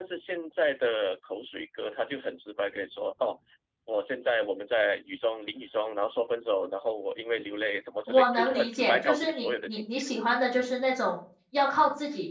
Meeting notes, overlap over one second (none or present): present